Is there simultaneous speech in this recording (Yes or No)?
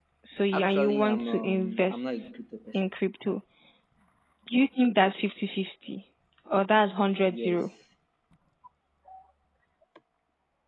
Yes